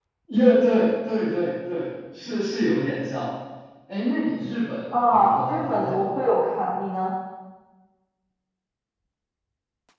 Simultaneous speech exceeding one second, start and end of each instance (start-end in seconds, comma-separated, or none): 4.9-6.4